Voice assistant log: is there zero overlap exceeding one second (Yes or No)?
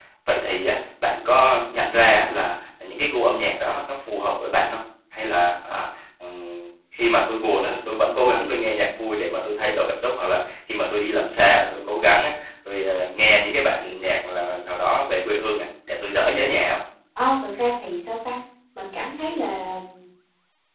Yes